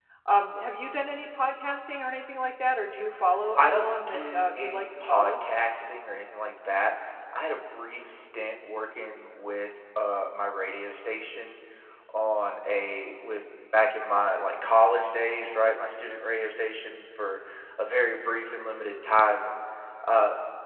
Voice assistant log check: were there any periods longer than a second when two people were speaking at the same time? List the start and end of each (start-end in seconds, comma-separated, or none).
3.6-5.3